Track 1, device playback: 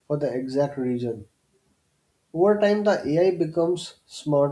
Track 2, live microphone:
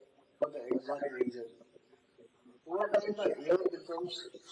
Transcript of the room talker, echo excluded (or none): none